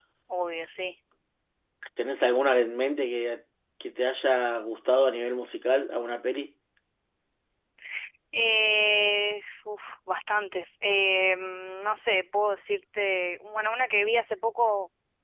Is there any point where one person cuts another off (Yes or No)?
No